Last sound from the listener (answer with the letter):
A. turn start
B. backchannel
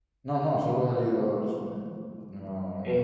A